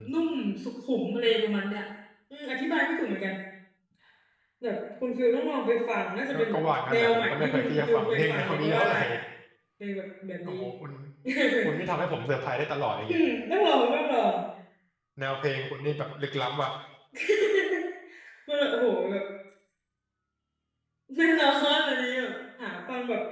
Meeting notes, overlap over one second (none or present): present